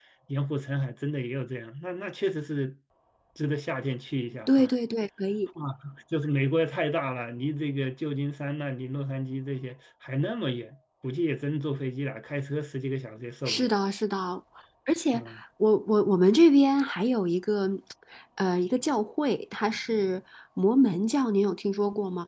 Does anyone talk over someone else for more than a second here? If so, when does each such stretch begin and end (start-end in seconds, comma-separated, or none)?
none